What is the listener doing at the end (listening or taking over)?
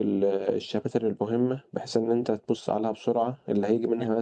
listening